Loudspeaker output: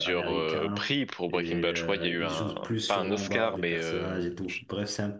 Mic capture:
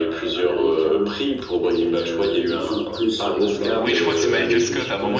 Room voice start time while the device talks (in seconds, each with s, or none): 3.8 s